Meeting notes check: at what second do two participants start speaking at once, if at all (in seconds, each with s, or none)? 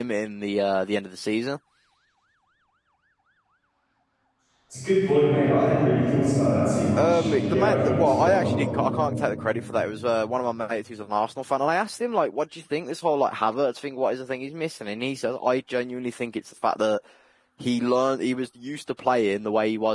7.0 s